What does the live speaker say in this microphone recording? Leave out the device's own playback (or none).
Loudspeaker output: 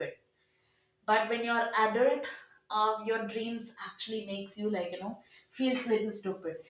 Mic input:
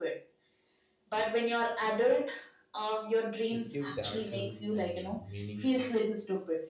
which give directions and meaning